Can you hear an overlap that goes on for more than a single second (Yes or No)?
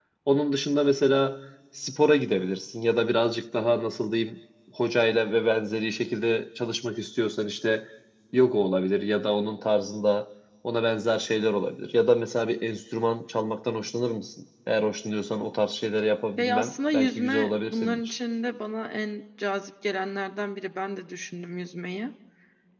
Yes